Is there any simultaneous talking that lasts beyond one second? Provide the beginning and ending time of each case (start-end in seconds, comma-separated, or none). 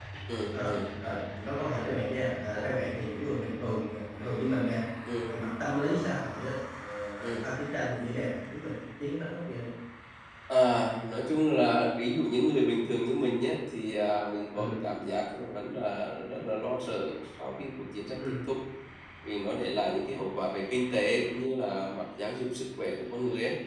none